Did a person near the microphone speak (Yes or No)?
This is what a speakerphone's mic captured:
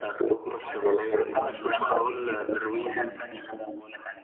Yes